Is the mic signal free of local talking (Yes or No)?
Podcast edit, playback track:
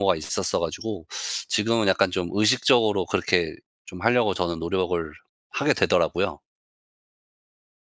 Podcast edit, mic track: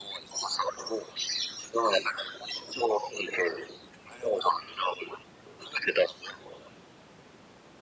Yes